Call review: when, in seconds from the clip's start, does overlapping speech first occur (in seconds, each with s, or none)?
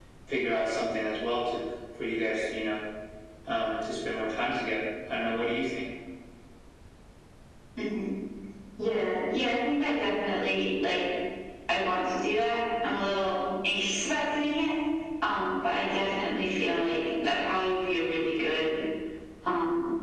none